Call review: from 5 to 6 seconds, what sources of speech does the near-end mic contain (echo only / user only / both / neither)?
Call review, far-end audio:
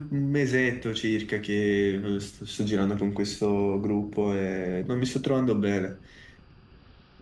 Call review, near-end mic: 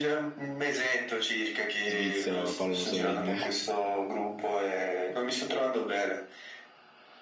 echo only